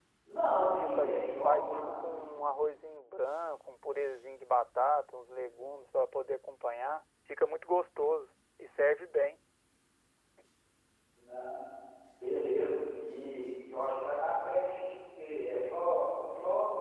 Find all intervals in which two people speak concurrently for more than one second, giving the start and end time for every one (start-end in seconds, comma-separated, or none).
0.6-2.3